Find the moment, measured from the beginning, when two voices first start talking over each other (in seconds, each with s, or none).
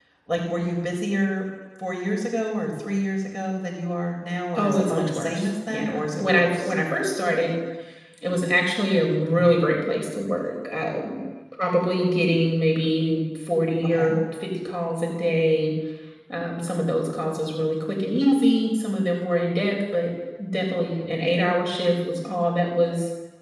4.6 s